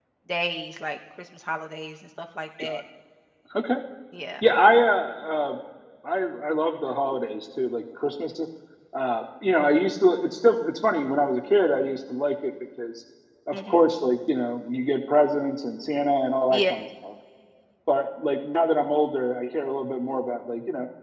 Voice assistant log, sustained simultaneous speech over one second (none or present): none